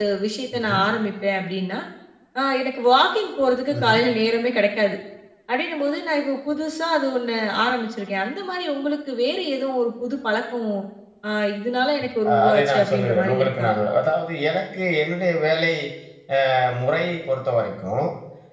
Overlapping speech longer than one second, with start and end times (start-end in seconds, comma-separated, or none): 12.3-13.7